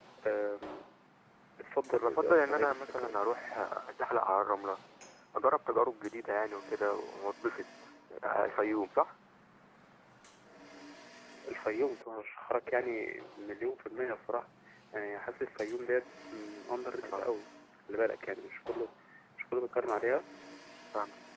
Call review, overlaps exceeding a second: present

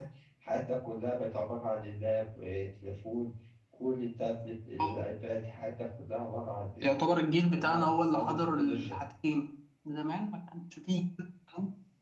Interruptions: present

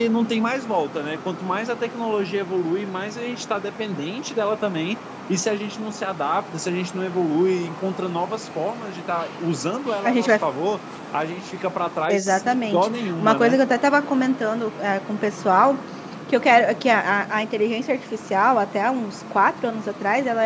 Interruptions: present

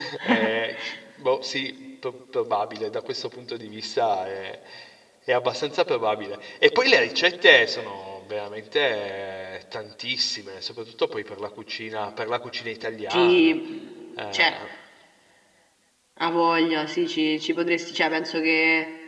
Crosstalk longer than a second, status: none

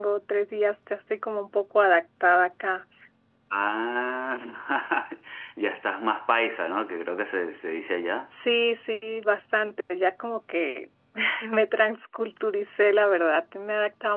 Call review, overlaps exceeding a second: none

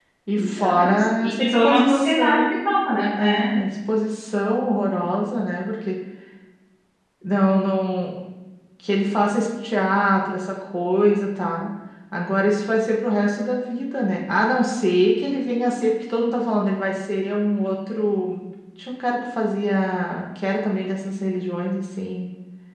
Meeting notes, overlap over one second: present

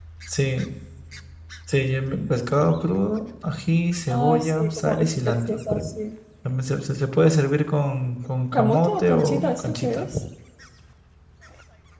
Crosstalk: present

